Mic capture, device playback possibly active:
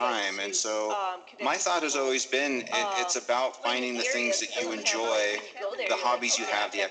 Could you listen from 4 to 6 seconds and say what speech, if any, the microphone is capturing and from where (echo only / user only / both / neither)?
both